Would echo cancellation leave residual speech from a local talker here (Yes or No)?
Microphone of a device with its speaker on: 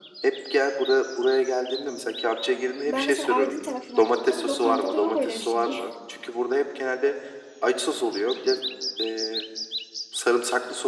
Yes